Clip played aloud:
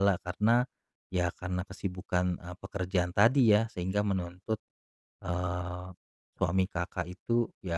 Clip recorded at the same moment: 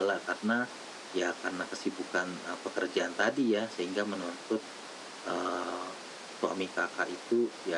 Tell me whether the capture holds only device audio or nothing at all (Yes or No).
Yes